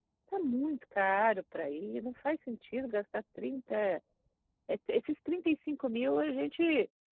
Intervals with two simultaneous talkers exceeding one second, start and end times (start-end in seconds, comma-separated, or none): none